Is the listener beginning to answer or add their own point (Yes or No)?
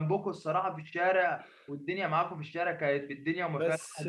No